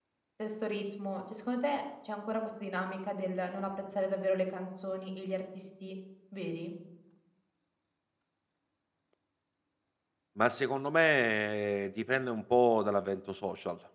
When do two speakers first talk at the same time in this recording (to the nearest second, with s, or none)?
none